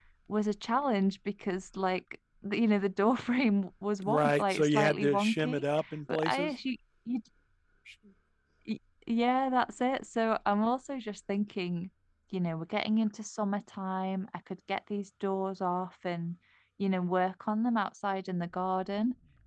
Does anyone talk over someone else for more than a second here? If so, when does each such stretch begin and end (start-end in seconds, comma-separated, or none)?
4.0-5.6